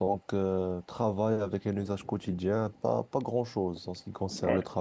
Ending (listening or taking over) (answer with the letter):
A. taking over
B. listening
B